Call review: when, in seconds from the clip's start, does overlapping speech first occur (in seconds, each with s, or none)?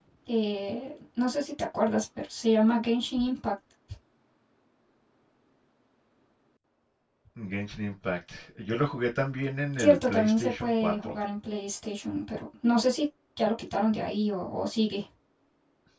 9.8 s